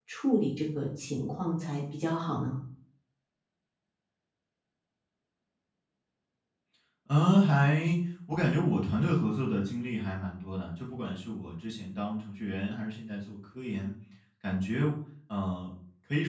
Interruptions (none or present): none